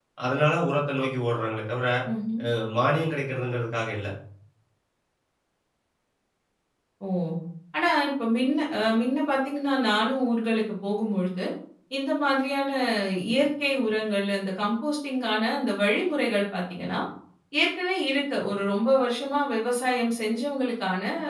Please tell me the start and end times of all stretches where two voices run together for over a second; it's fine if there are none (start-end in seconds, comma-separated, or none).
none